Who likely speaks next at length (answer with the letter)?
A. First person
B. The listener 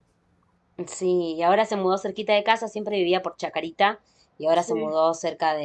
A